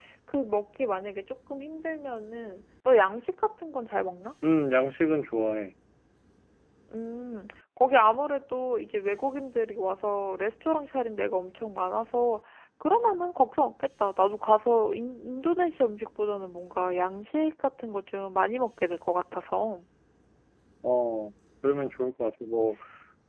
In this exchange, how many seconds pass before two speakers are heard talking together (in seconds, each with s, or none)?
none